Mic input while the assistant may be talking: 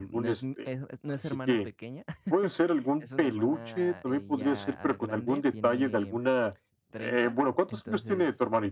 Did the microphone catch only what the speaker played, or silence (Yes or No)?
No